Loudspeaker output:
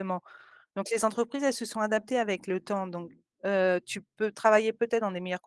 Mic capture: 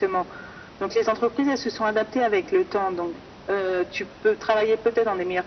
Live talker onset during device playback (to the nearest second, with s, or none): none